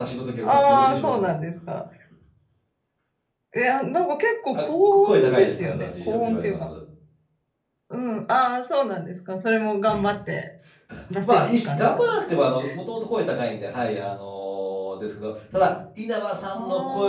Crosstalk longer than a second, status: present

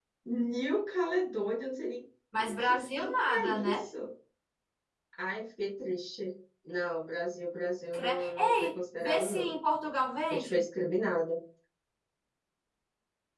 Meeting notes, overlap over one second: present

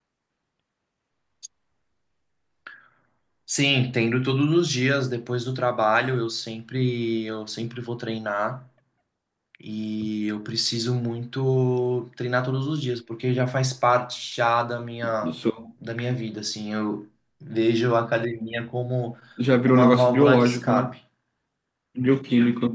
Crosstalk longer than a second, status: present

